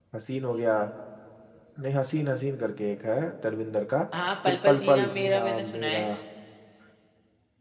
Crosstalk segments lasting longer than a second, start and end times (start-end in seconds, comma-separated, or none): 4.5-6.0